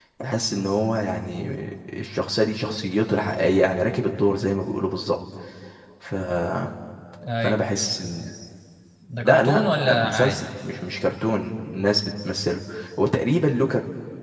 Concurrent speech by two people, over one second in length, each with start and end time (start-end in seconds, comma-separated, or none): 9.2-10.5